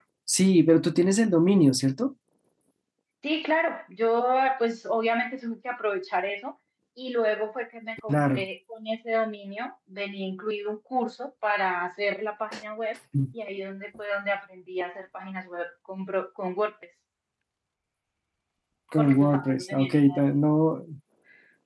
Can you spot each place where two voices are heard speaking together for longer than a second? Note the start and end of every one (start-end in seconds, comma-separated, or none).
19.0-20.2